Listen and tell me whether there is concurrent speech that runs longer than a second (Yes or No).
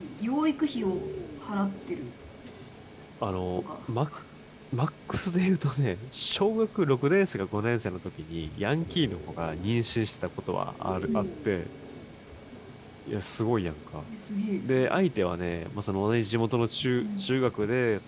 No